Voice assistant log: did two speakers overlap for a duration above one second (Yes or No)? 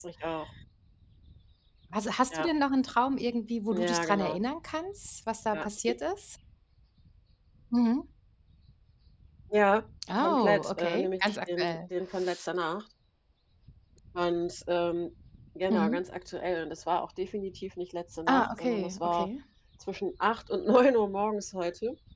Yes